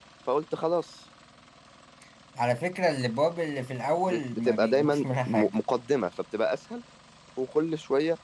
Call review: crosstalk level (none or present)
present